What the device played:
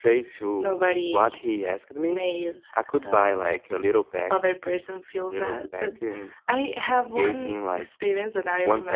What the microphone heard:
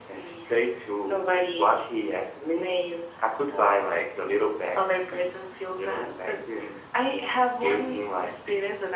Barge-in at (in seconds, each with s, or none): none